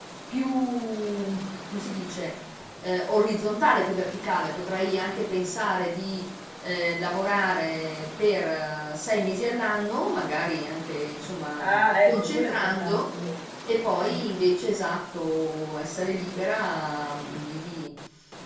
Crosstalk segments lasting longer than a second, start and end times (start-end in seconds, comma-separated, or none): 11.6-13.0